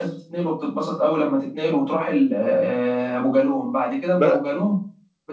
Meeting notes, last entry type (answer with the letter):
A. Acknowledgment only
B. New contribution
A